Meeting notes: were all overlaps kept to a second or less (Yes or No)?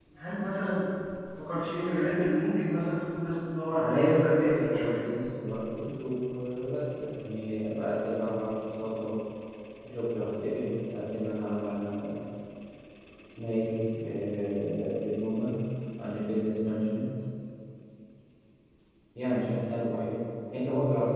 No